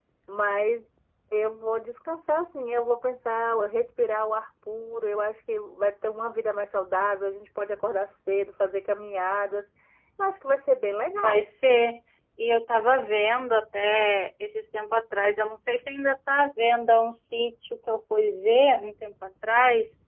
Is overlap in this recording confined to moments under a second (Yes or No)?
Yes